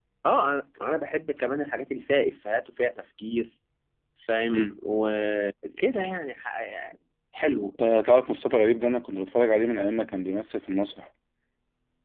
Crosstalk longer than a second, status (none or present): none